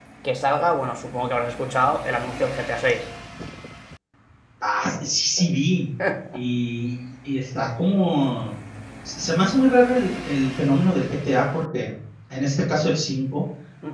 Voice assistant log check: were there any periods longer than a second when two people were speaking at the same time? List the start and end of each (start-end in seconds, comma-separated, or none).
none